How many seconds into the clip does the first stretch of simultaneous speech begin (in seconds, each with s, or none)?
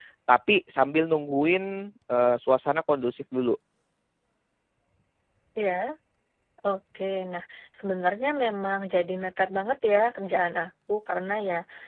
none